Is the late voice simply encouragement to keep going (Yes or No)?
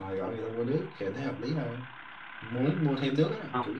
Yes